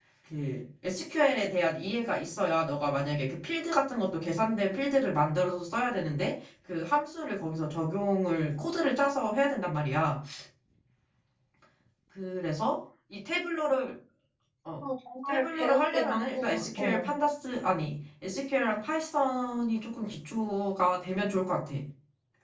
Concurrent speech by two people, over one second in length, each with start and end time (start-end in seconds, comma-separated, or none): 15.3-17.1